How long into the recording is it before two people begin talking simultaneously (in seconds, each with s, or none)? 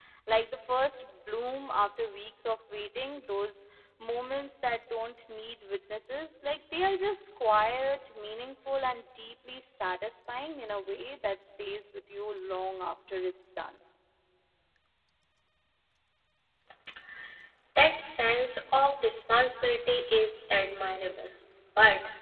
none